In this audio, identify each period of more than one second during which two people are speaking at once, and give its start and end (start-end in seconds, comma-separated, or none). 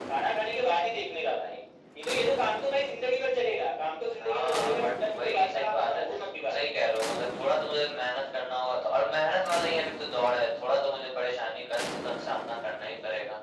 4.2-6.6